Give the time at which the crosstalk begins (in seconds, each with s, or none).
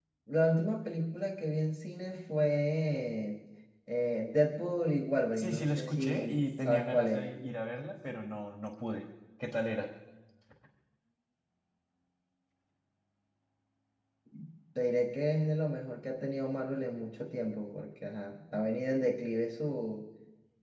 5.4 s